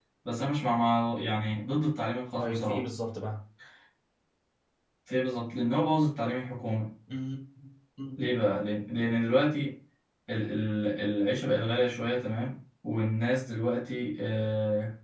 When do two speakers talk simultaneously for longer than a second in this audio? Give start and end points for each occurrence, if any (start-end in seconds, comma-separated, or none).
none